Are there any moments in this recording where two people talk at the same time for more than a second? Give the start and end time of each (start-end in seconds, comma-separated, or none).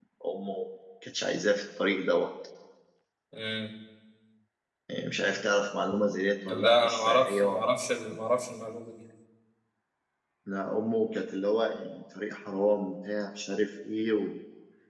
6.5-7.7